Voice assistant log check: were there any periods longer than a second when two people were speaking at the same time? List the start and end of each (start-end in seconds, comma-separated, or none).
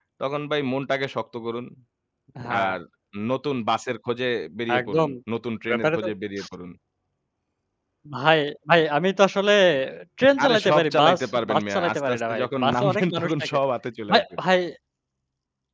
10.4-13.6